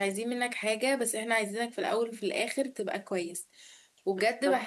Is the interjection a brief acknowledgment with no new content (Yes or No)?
Yes